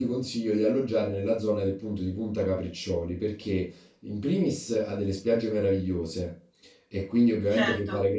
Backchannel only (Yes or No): Yes